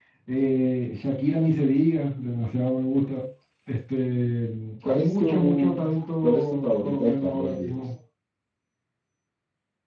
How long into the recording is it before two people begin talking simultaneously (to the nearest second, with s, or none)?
5 s